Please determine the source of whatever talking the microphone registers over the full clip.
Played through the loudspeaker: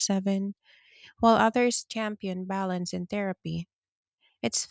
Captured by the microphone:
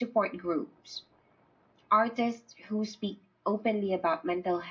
user only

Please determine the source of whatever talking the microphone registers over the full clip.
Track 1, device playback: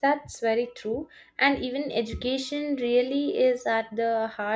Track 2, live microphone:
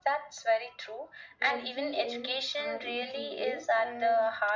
both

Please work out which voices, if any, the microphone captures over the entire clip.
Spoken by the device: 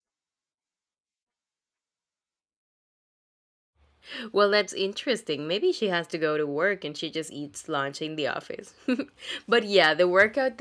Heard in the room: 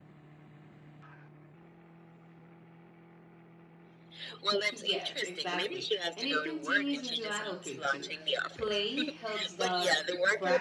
both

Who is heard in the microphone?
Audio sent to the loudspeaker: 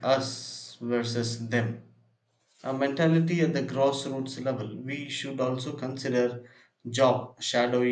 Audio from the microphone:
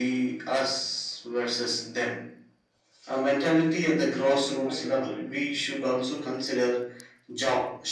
both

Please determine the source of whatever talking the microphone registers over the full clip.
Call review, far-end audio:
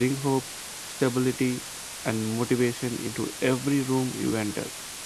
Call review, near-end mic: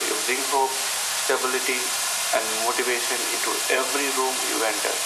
echo only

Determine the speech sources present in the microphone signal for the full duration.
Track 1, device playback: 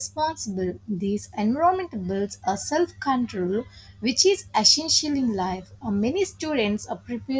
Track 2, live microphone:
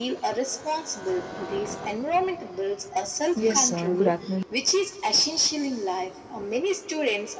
both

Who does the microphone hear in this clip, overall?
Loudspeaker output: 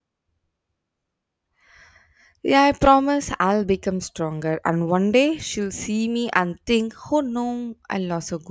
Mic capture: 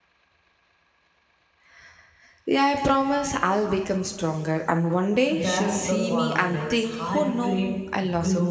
both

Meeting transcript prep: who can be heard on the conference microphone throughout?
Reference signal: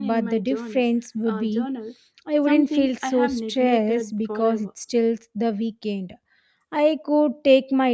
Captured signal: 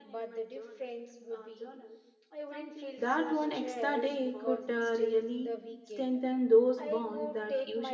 both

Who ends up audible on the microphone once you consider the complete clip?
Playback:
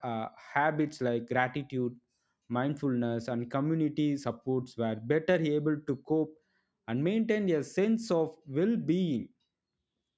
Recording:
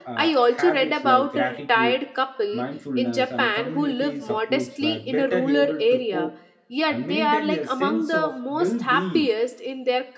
both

